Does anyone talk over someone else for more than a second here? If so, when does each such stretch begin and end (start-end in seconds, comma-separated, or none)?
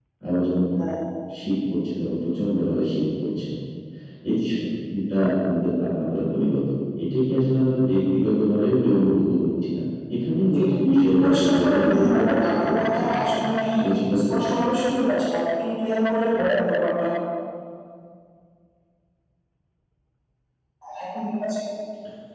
10.5-13.0